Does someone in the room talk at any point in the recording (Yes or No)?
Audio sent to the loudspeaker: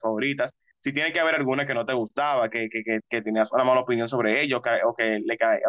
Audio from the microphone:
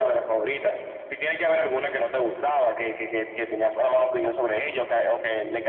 No